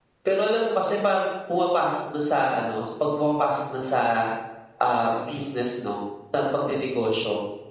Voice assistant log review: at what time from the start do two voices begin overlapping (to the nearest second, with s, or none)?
none